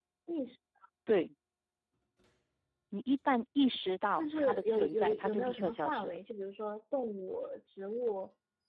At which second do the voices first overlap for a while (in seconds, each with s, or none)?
4.2 s